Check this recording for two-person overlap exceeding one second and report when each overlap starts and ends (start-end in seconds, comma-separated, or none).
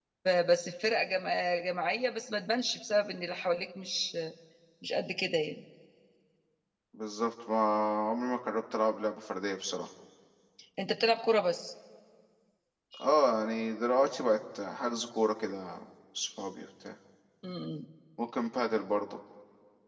none